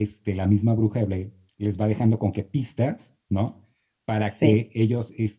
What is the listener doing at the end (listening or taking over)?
listening